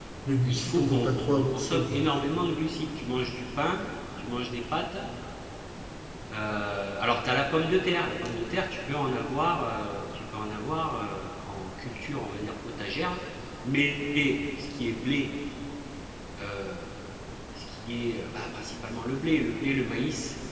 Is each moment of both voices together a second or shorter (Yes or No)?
No